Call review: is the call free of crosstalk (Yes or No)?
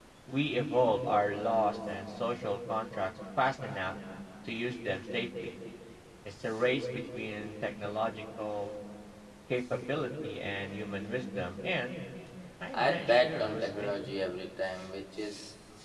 No